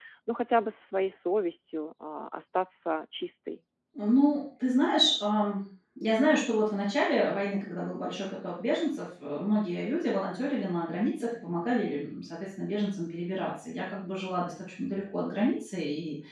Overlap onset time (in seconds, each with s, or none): none